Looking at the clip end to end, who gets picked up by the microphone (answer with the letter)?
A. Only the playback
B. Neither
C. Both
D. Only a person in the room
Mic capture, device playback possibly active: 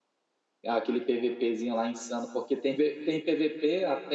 D